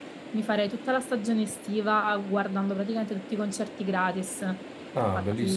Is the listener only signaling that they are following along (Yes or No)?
Yes